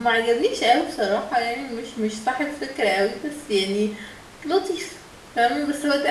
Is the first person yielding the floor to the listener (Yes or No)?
Yes